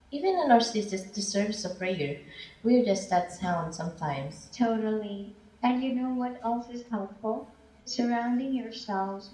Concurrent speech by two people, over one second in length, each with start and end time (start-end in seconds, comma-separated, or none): none